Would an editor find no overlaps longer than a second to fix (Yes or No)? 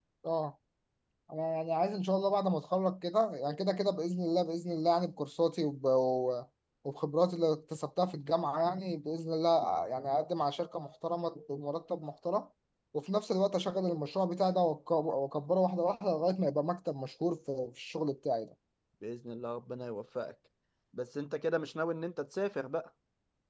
Yes